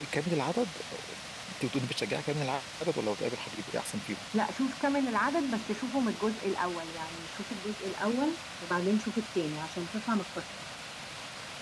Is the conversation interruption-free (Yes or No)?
Yes